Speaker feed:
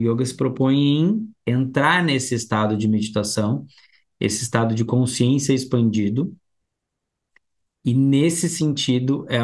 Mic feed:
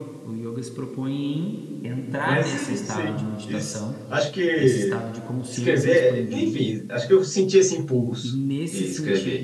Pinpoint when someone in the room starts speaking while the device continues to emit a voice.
2.2 s

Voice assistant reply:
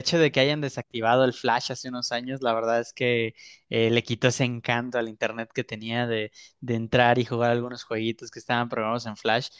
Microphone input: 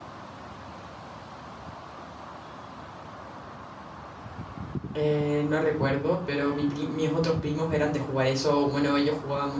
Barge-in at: 5.0 s

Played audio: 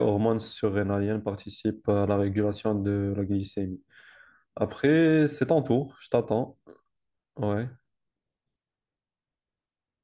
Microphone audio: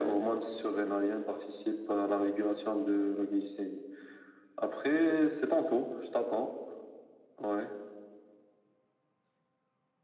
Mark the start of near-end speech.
none

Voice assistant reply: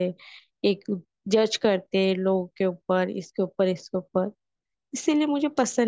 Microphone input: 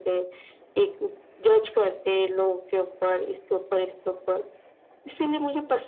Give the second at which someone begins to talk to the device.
none

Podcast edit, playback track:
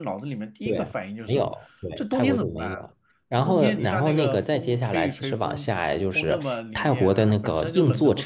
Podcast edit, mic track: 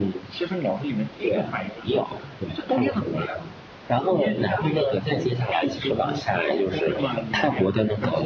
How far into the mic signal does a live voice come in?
none

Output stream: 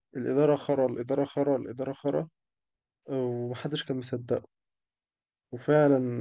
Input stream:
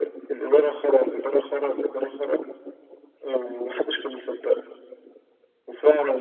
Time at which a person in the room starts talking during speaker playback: none

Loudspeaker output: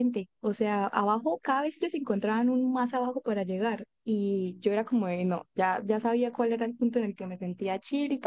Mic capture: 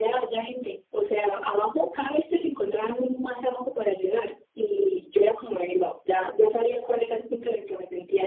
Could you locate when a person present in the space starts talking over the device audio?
none

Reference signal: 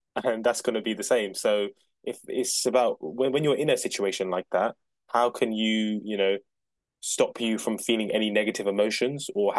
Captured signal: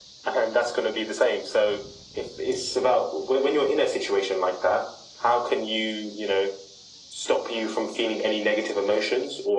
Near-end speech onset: none

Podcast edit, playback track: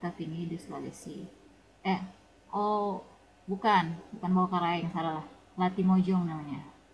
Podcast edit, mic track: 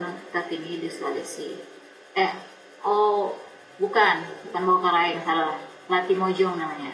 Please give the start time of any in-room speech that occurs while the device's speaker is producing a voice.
none

